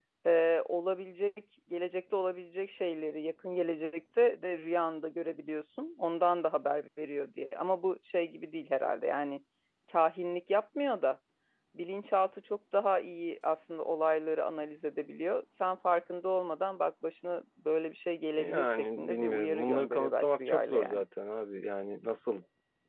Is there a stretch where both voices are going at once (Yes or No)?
Yes